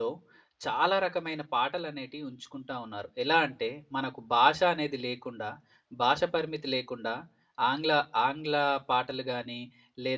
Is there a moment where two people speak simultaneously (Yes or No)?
No